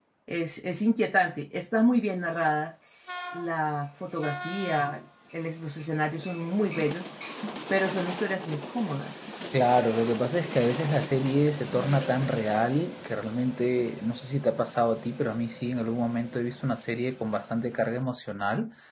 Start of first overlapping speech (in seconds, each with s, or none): none